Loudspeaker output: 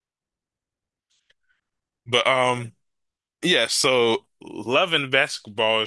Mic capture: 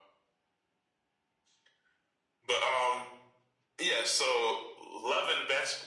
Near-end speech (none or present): none